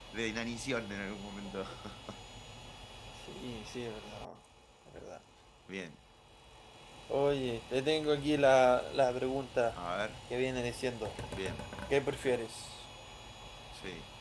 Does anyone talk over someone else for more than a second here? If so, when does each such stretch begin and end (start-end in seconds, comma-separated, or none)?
none